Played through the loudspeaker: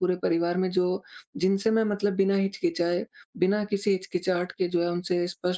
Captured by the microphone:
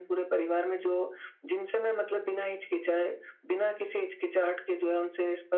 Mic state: echo only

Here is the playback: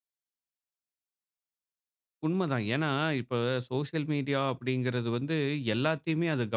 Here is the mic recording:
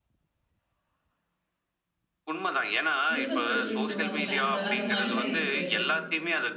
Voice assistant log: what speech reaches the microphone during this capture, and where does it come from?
both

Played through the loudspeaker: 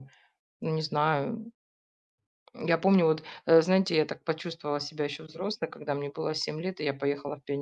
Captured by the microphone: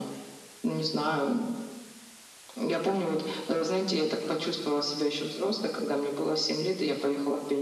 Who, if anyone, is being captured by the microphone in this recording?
echo only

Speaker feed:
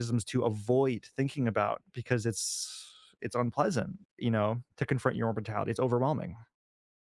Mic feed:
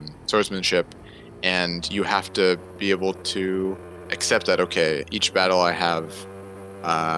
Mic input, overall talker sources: user only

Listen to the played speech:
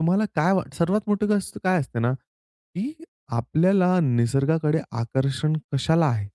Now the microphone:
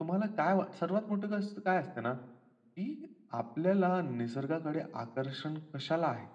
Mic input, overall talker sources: echo only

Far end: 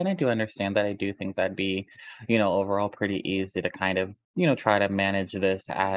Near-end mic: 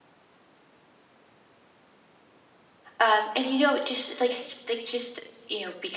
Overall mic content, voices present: user only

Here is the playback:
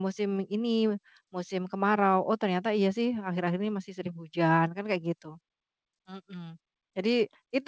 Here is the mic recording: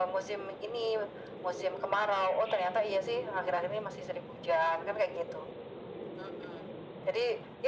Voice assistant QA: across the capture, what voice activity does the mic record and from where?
echo only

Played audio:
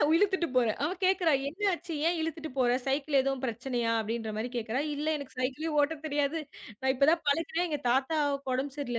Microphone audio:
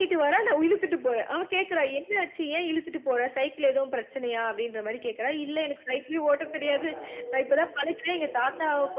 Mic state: both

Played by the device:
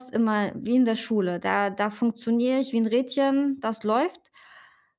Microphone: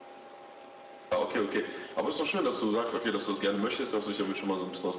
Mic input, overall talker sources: user only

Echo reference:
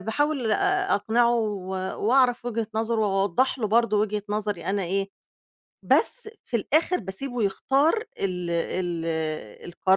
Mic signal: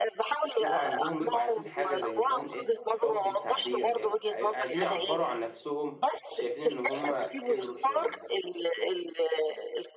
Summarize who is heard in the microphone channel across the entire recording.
both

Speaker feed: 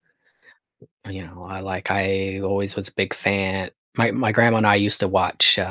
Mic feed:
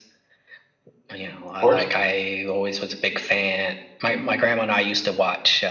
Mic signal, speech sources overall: both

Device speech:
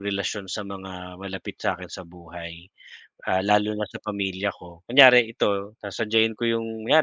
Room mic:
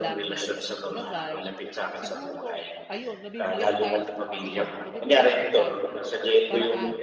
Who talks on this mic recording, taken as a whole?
both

